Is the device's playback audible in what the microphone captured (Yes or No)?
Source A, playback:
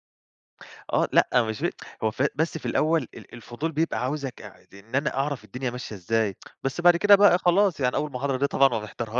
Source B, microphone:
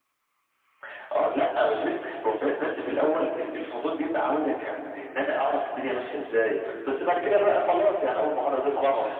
Yes